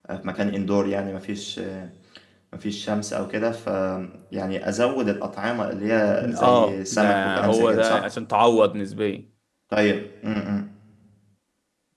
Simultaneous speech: Yes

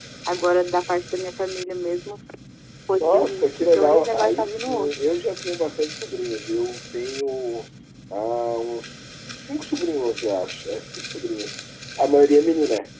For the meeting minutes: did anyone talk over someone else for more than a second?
Yes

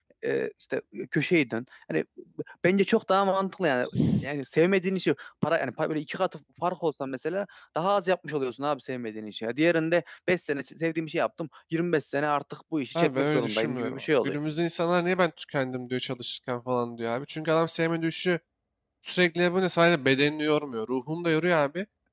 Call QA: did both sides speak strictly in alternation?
No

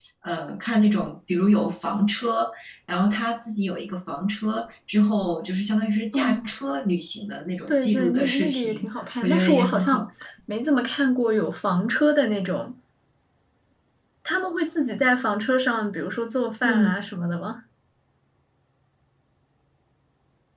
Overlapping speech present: Yes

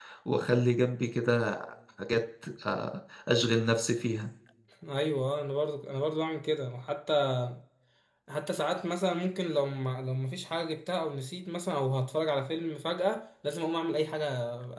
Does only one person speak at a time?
Yes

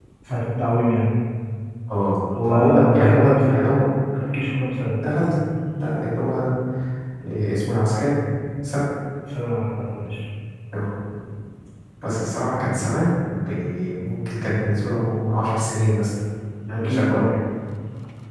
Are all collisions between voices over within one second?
No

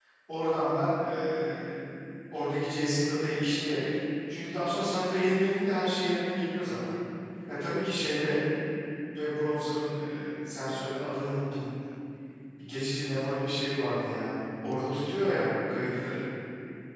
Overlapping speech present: No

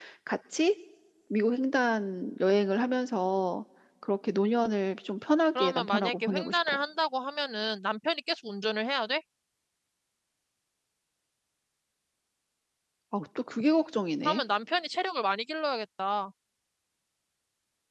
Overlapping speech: Yes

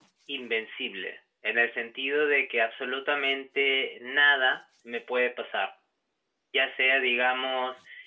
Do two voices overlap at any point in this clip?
No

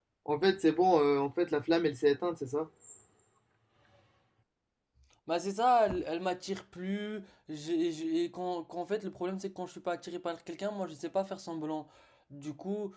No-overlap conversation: Yes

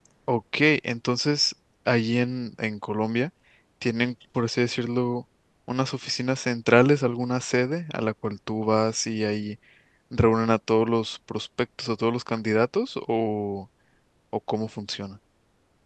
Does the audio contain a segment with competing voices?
No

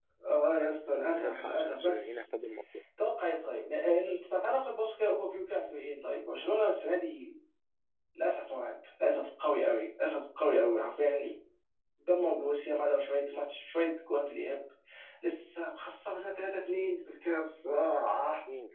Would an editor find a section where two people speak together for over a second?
Yes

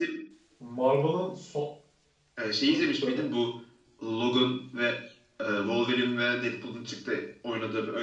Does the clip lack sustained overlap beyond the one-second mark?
Yes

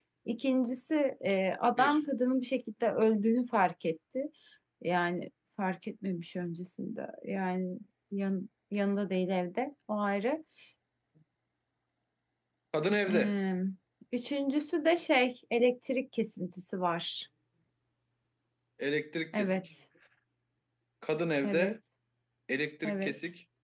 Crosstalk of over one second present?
No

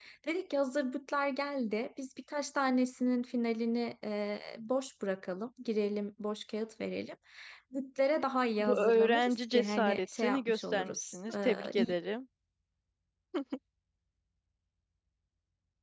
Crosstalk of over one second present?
Yes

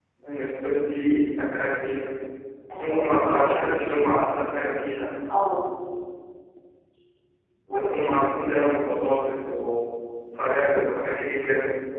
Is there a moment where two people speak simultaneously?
Yes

